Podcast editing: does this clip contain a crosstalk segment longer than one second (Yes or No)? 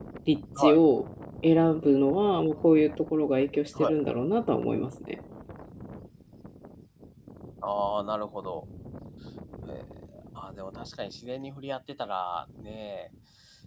No